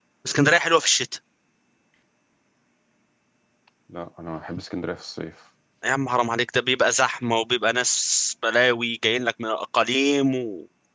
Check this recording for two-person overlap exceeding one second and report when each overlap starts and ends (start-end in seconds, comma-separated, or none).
none